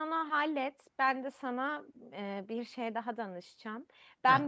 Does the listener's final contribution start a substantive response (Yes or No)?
No